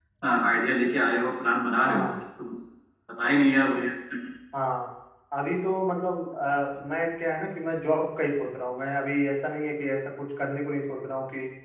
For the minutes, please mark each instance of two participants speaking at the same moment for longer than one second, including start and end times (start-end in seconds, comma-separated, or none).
none